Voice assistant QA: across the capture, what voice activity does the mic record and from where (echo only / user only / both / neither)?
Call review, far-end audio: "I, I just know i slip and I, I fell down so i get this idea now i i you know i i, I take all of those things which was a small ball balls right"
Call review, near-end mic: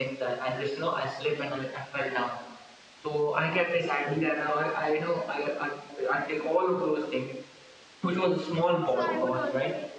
both